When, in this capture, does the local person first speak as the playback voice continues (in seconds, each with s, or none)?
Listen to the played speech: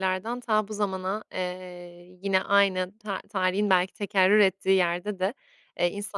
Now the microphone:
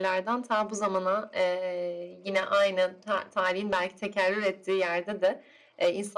none